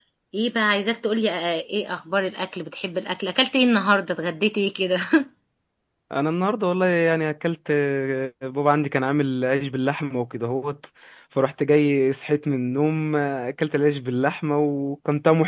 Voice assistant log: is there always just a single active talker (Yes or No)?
Yes